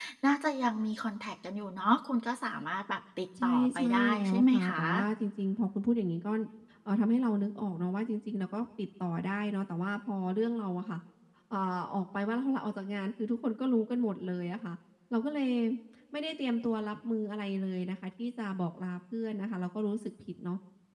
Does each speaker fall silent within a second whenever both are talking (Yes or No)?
No